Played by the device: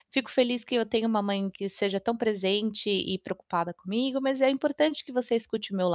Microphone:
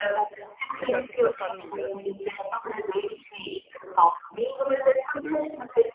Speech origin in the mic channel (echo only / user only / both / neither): both